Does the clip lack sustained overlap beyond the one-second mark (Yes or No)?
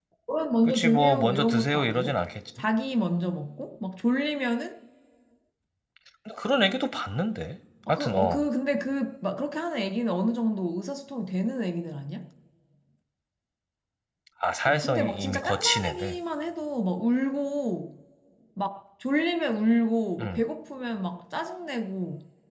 No